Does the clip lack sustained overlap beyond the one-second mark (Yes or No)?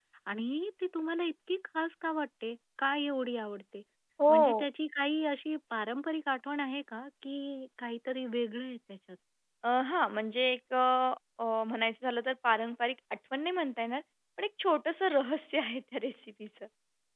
Yes